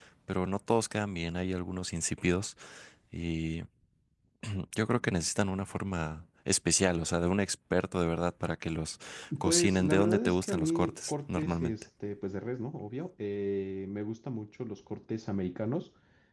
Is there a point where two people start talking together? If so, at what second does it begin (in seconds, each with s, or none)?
9.4 s